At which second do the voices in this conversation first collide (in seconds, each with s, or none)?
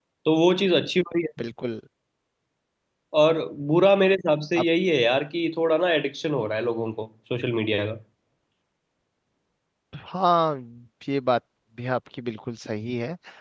none